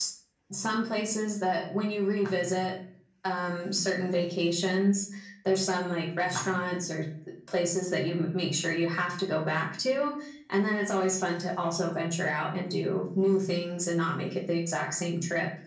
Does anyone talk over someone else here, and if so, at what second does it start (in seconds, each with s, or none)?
none